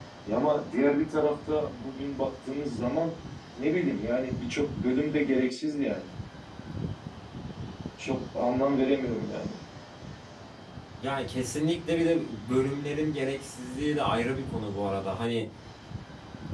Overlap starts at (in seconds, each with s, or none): none